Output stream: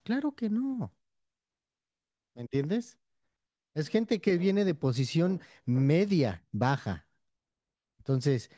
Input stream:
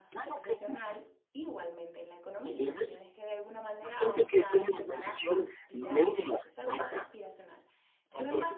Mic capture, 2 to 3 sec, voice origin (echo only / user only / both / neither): both